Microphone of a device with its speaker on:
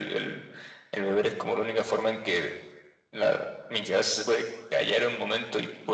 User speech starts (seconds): none

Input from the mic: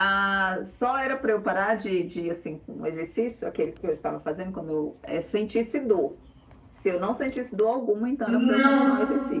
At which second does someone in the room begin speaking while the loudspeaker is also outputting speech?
8 s

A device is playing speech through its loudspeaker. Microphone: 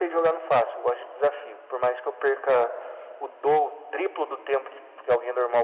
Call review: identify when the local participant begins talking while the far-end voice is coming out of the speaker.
none

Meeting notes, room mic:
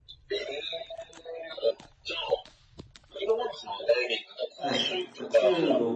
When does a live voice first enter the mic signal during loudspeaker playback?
5 s

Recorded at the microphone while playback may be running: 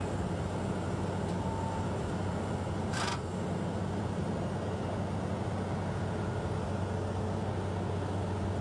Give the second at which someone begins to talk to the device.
none

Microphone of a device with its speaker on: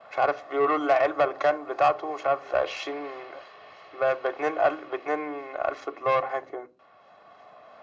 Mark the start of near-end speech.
none

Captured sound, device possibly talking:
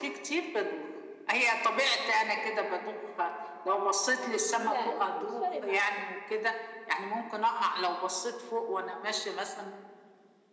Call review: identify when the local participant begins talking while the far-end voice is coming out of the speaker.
5 s

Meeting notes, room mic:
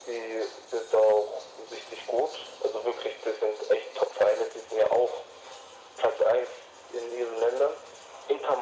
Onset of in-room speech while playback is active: none

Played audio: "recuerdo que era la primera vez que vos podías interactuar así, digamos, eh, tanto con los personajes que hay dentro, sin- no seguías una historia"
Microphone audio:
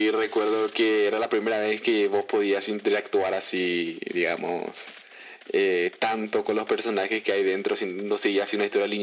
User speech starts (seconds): none

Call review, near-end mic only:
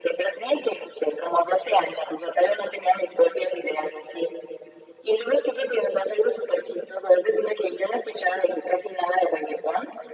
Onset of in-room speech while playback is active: none

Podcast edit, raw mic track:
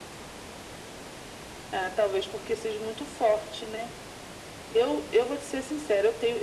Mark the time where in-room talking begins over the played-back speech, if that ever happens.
none

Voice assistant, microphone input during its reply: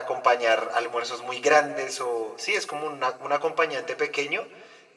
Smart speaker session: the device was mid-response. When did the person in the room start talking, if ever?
none

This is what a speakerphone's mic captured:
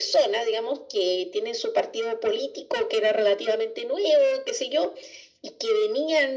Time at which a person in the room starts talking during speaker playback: none

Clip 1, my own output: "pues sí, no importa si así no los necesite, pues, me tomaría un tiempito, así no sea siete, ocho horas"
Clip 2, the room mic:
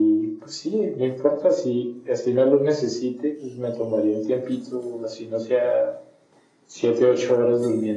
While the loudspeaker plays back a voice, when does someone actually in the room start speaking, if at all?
none

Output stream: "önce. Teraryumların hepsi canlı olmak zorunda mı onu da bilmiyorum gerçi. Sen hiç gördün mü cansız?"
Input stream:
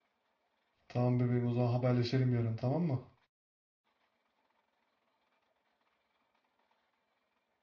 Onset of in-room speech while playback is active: 1 s

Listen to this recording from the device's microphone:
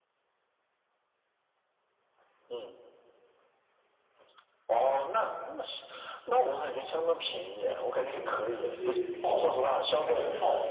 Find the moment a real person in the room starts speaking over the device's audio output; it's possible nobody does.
8 s

